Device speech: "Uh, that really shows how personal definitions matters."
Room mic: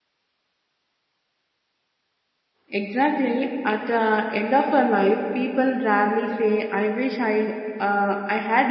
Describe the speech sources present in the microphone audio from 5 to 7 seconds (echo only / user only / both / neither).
user only